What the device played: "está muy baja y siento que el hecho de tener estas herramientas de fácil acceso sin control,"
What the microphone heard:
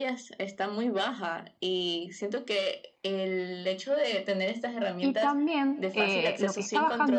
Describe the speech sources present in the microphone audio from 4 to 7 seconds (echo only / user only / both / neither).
both